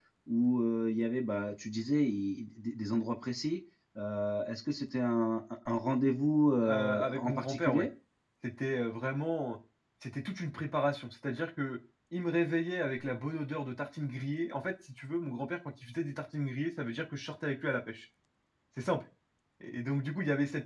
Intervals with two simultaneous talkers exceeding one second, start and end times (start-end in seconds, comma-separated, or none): 6.6-7.8